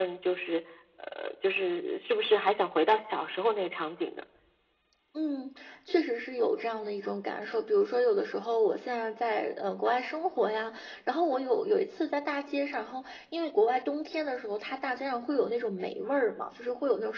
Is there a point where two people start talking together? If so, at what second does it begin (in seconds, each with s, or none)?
none